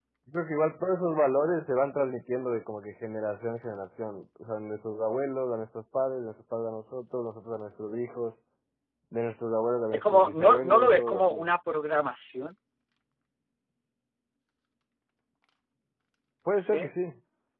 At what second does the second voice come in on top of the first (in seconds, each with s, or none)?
9.9 s